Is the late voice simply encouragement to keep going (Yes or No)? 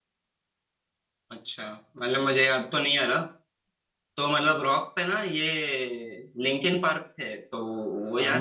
No